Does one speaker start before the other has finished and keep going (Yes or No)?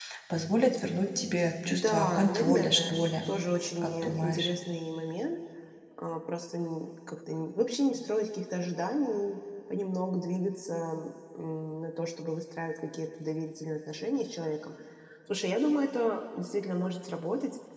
Yes